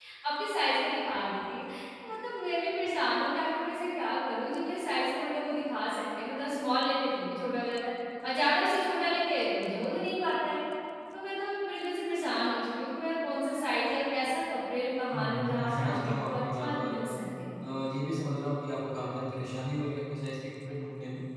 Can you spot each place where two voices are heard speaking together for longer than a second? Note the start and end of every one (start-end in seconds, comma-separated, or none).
15.1-16.9